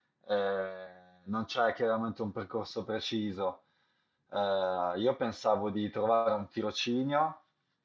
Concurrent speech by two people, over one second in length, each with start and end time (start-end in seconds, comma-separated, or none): none